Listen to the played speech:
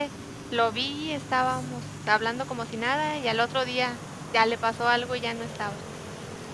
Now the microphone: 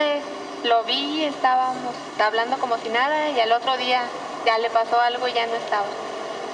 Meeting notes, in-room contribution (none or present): none